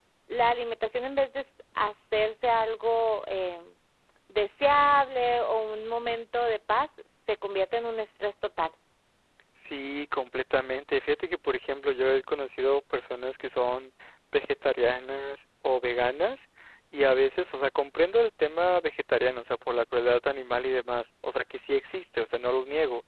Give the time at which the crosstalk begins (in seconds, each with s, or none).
none